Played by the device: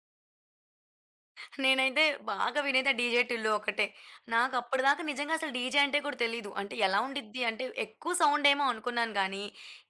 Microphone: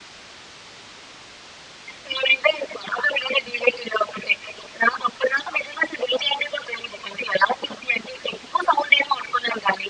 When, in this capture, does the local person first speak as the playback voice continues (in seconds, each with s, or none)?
none